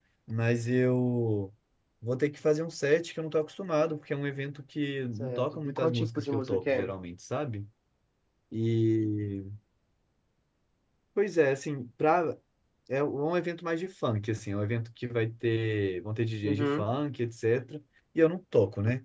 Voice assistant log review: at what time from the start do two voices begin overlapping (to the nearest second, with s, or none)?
5 s